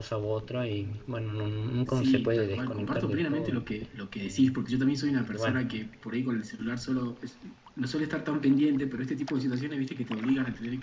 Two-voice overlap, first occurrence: 1.9 s

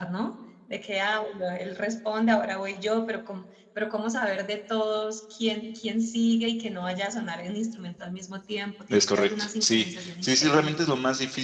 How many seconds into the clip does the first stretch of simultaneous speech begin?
8.9 s

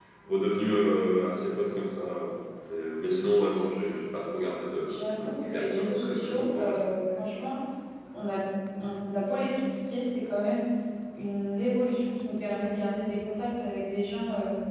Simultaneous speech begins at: 4.8 s

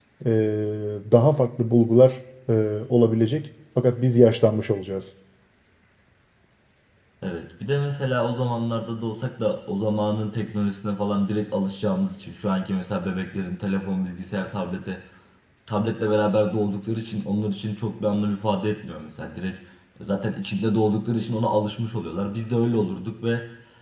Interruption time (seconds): none

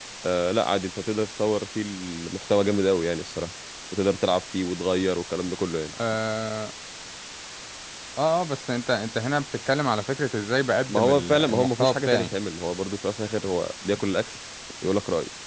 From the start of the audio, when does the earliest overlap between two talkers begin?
10.9 s

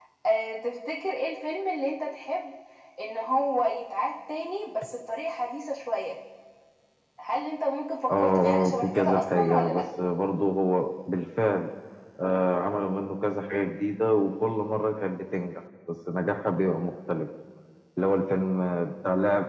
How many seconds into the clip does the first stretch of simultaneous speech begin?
8.1 s

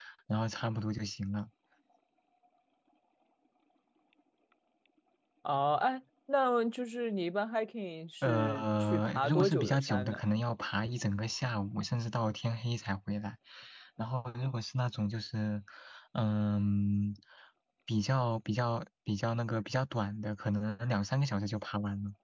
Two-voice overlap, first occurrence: 8.2 s

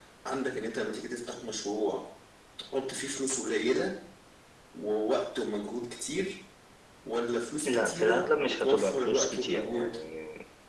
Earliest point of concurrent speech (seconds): 7.6 s

